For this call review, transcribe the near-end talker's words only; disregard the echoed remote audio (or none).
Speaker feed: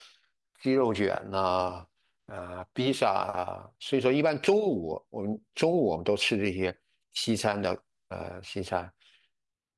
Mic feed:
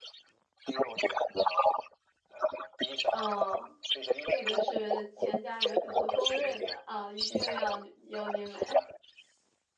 哦，这个是全家人可能公认的啊，一定要由您来。